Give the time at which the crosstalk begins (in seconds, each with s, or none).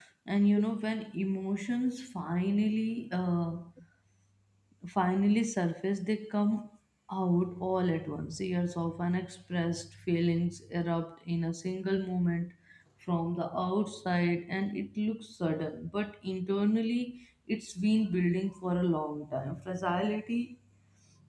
none